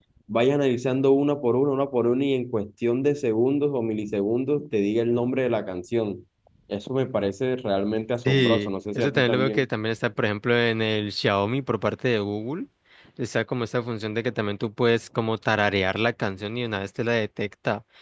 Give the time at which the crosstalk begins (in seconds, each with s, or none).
8.2 s